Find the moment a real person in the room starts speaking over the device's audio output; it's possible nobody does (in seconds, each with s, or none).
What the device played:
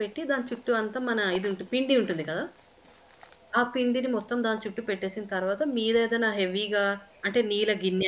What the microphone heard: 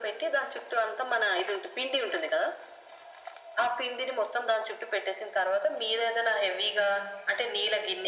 none